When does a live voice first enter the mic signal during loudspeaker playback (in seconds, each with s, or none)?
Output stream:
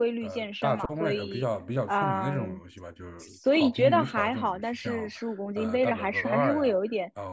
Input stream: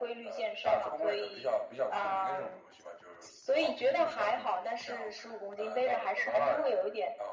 none